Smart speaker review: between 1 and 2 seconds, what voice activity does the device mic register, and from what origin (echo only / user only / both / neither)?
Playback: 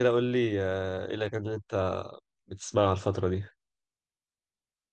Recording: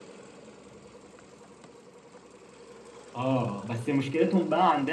neither